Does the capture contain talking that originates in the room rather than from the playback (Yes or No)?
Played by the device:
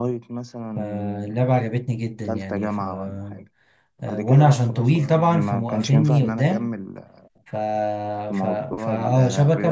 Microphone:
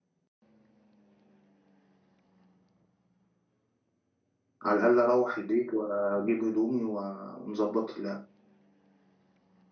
Yes